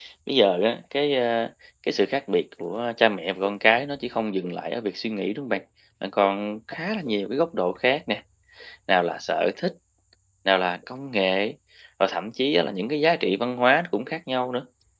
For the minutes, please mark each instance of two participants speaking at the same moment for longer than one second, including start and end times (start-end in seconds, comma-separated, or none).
none